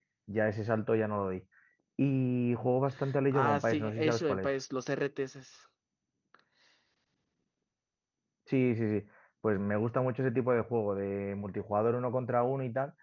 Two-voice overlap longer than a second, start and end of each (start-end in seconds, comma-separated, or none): 3.3-4.5